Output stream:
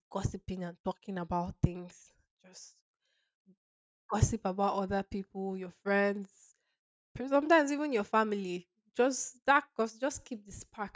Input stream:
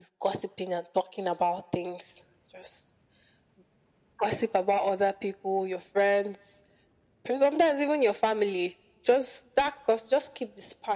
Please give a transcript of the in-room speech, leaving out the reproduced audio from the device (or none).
none